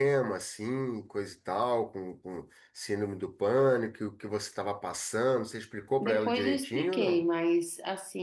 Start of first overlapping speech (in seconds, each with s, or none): 6.0 s